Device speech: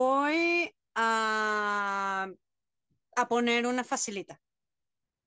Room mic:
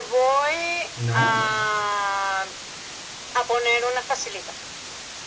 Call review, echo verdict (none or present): present